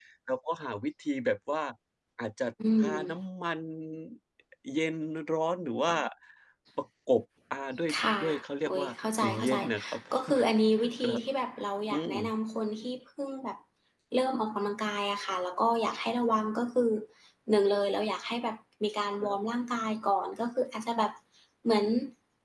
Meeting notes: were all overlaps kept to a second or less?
No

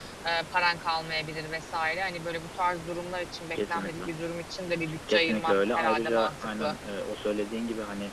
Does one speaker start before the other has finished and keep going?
Yes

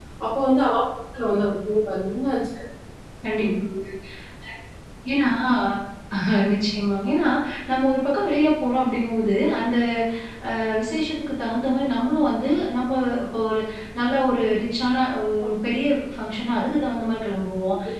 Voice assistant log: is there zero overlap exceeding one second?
Yes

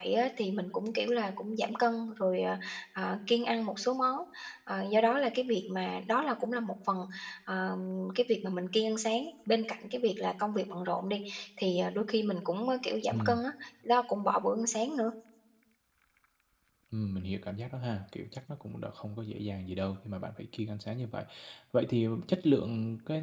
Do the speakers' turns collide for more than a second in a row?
No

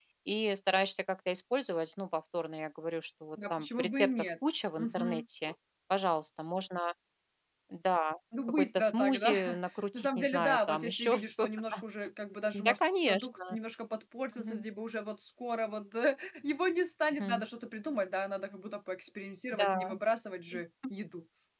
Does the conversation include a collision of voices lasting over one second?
Yes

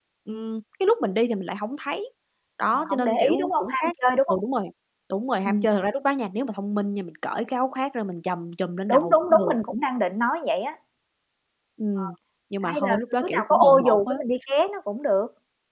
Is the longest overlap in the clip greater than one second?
Yes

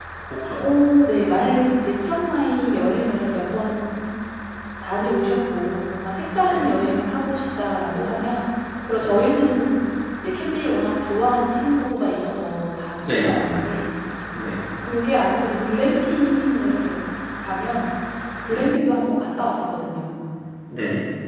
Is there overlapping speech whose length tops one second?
No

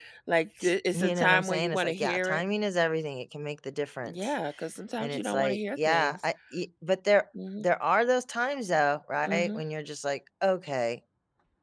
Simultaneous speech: Yes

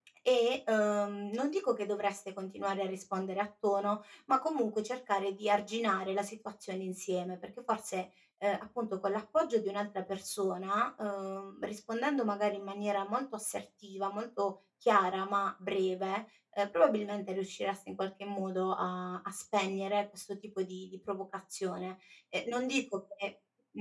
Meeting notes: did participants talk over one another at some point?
No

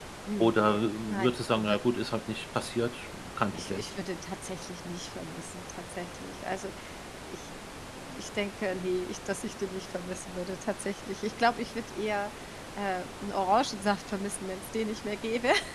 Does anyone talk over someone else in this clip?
Yes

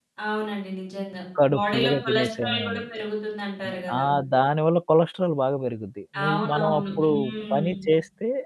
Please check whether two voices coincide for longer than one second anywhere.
Yes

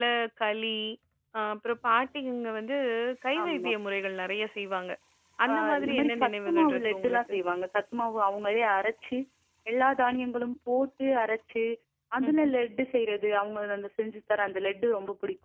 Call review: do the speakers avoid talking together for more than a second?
No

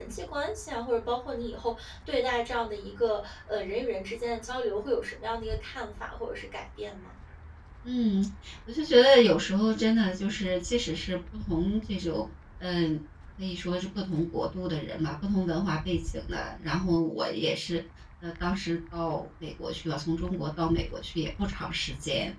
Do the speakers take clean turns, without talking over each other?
Yes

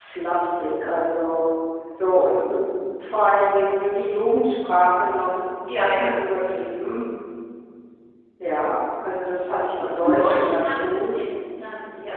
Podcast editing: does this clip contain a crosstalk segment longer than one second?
Yes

